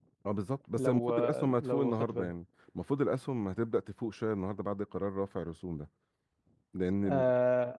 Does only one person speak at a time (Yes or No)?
No